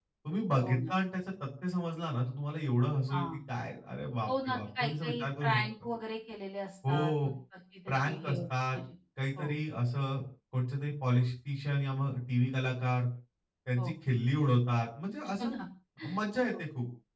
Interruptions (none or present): present